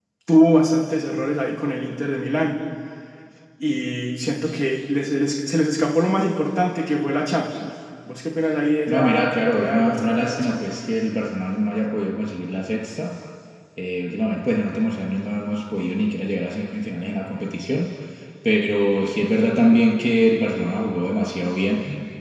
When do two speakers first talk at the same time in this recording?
8.9 s

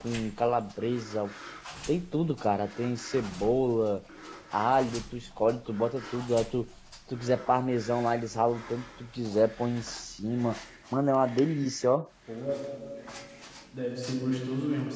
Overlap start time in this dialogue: none

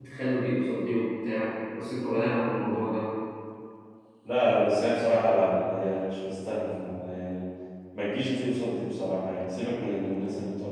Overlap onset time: none

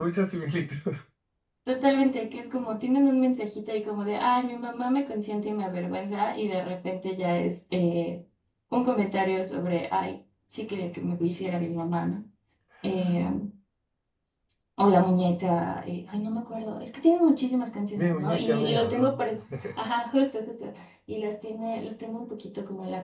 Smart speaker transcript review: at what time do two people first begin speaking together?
18.0 s

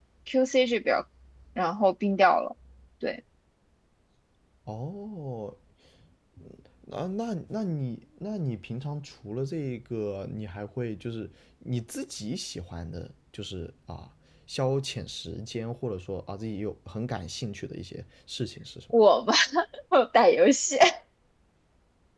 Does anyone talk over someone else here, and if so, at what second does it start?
none

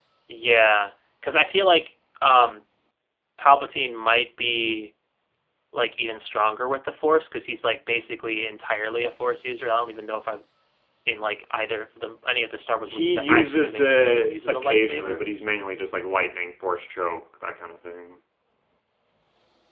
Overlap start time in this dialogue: 12.9 s

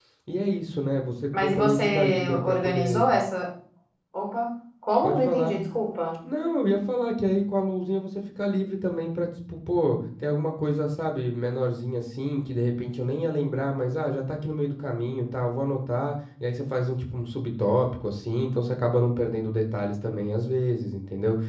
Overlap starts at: 1.4 s

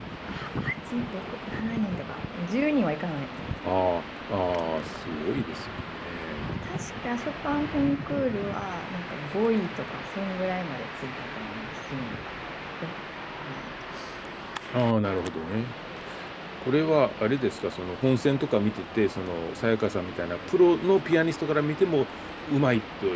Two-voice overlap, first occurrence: none

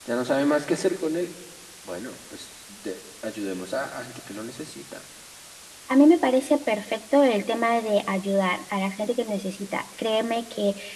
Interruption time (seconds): none

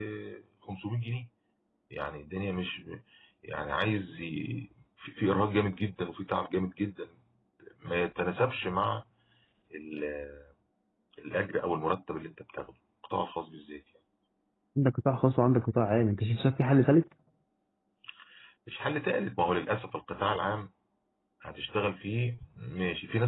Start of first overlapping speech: none

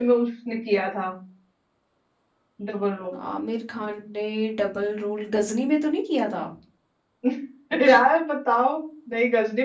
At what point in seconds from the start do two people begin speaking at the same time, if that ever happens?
none

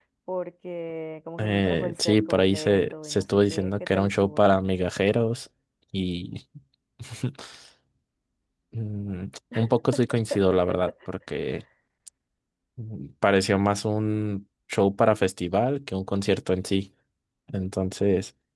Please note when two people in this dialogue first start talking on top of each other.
1.4 s

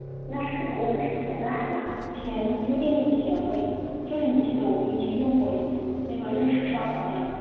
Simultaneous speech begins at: none

